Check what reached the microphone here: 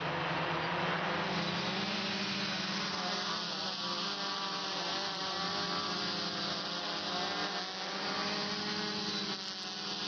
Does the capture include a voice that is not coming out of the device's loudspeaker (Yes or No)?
No